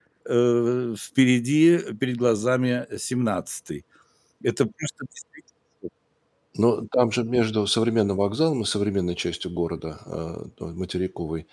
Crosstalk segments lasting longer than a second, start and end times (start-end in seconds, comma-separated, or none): none